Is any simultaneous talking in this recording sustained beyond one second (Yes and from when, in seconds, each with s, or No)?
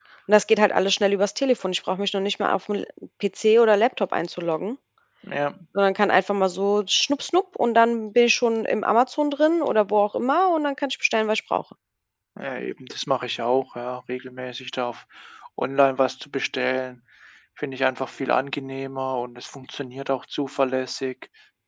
No